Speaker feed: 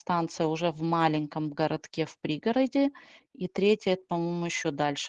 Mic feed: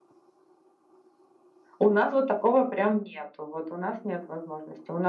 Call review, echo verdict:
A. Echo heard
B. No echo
B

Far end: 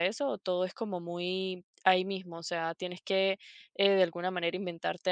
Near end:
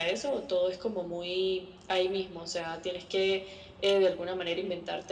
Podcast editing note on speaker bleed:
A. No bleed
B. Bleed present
B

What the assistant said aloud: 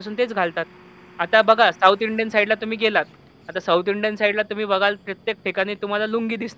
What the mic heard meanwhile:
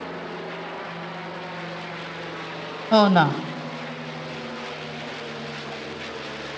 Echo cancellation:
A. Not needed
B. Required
A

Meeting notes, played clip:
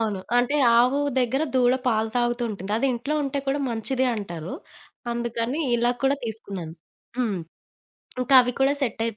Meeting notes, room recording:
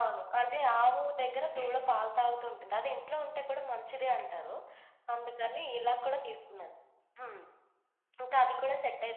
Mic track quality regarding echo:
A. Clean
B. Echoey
B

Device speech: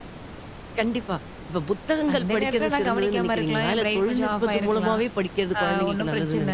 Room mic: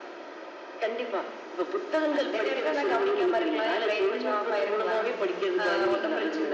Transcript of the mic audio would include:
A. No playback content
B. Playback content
B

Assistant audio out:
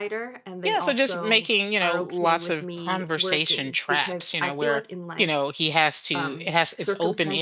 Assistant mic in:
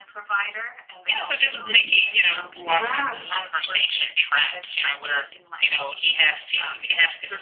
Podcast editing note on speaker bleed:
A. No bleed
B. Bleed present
B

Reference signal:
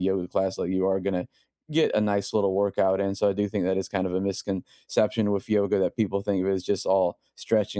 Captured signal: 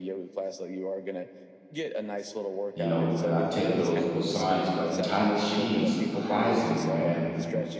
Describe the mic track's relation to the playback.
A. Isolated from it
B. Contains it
B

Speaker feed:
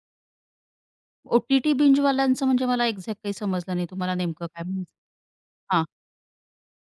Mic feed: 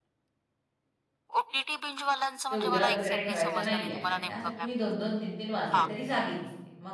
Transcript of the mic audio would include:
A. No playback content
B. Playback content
B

